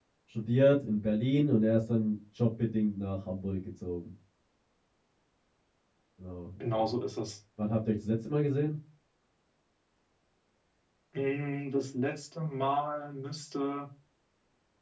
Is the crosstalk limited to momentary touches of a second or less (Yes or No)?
Yes